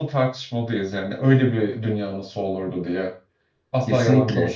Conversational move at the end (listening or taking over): listening